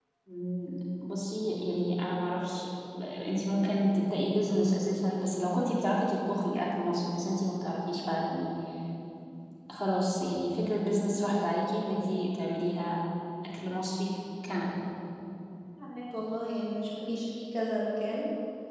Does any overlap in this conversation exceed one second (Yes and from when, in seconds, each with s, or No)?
No